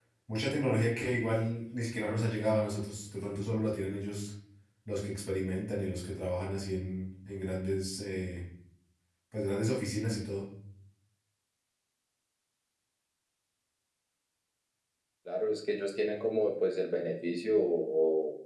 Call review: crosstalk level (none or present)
none